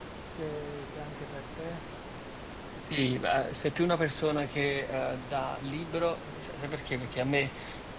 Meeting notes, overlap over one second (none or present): none